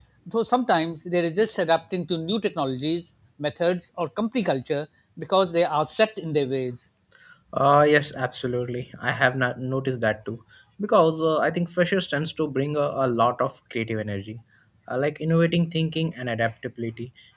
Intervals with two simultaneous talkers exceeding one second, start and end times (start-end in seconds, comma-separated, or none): none